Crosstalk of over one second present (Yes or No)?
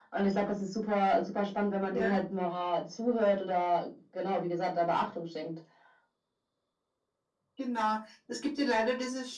No